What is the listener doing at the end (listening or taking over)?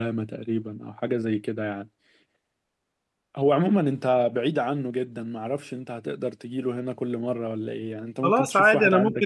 taking over